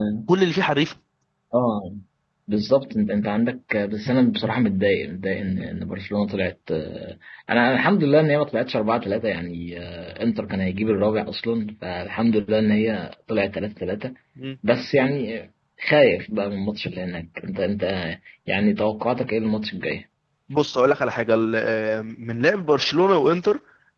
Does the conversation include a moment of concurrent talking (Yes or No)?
No